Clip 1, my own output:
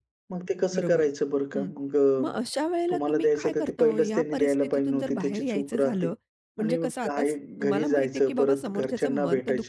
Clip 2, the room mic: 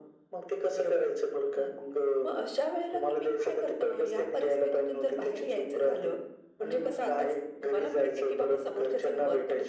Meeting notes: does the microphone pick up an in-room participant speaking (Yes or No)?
Yes